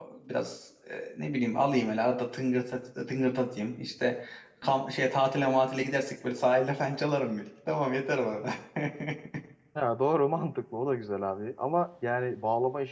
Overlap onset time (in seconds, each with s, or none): none